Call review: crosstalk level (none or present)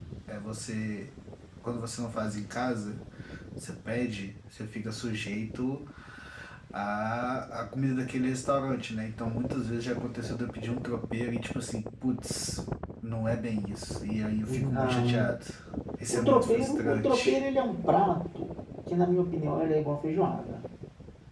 present